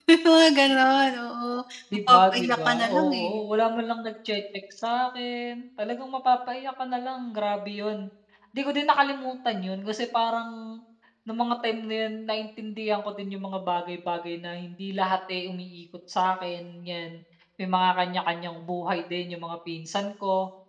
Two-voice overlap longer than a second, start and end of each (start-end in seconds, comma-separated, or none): 2.1-3.4